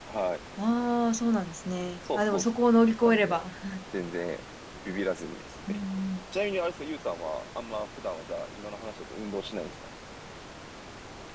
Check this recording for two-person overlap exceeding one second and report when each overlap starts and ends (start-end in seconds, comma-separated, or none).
none